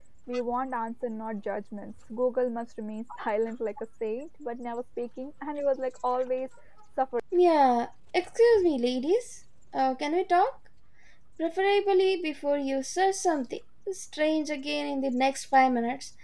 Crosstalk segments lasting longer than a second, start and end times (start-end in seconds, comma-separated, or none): none